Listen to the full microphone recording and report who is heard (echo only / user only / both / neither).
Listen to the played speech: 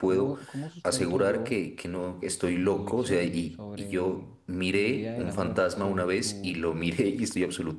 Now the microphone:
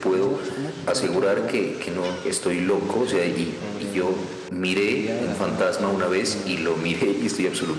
echo only